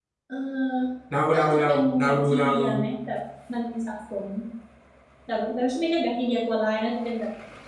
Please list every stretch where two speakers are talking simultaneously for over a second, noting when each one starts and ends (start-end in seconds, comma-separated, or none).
1.3-2.6